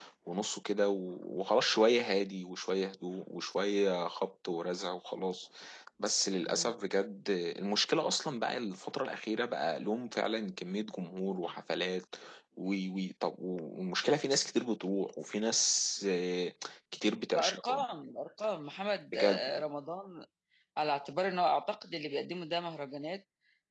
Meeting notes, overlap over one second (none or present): none